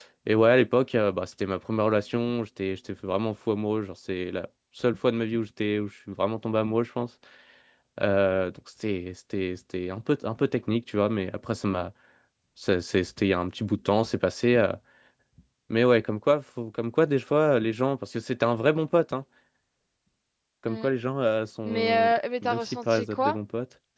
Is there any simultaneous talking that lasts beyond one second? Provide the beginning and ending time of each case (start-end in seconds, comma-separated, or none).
21.6-23.4